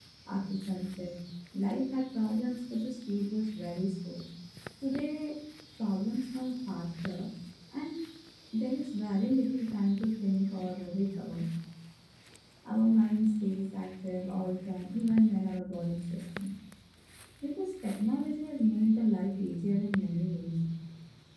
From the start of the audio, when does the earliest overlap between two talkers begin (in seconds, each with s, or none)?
none